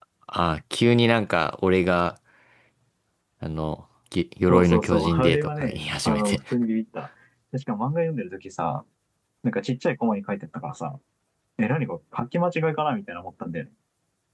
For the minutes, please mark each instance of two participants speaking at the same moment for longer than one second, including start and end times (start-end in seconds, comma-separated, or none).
4.5-6.4